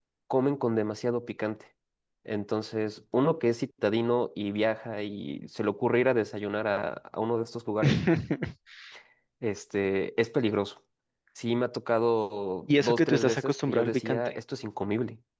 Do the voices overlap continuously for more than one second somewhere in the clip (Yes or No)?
Yes